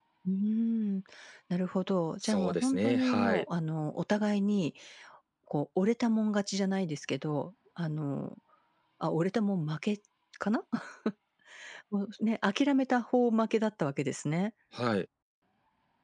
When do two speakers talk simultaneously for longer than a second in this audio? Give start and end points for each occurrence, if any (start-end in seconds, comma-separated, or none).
2.2-3.4